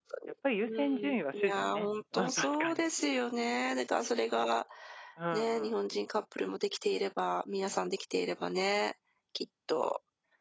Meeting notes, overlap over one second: present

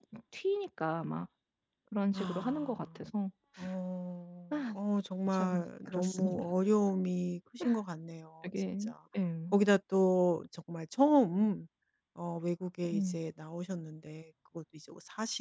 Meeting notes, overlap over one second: present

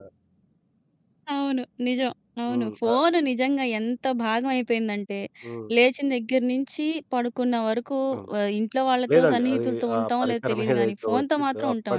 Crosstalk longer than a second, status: present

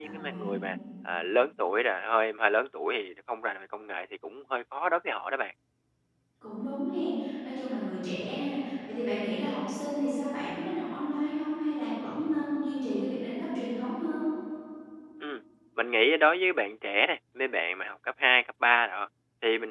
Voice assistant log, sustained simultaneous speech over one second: none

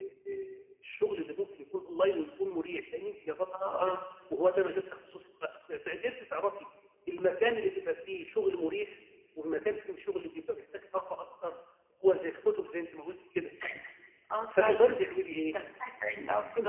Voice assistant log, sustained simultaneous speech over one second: none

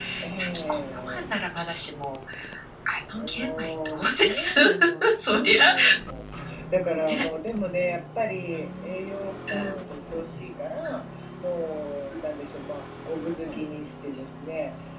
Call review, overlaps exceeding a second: present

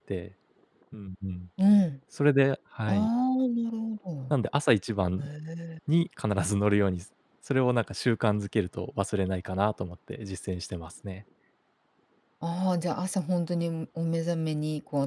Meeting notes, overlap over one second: none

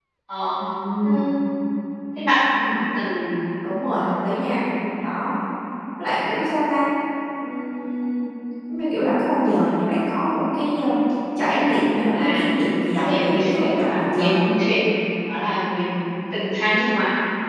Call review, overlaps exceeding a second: present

